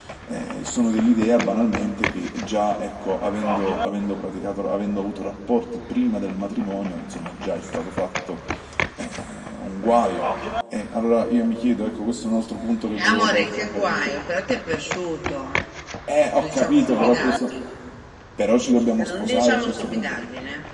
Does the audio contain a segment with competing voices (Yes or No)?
Yes